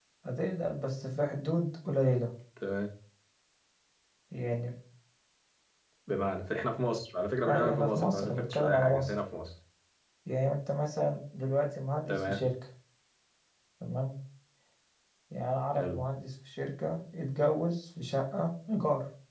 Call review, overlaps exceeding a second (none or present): present